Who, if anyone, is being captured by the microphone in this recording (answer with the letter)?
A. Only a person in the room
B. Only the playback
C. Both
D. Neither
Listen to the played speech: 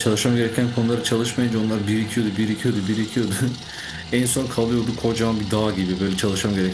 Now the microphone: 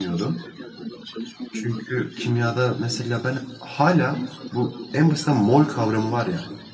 C